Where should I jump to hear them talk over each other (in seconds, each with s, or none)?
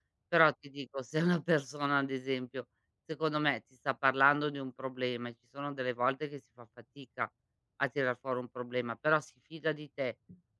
none